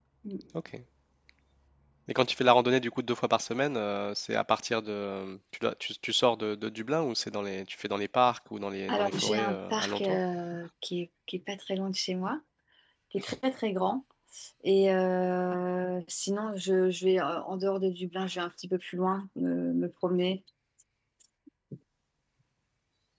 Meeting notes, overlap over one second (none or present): present